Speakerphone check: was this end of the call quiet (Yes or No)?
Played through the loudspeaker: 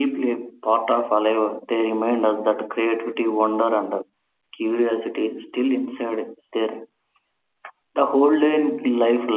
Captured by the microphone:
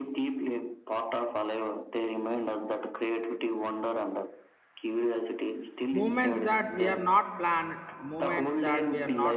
No